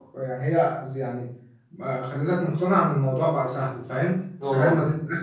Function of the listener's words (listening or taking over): listening